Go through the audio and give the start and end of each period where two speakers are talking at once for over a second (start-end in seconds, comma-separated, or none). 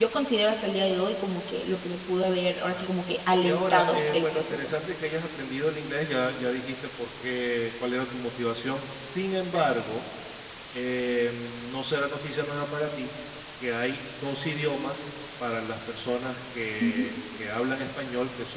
3.4-4.7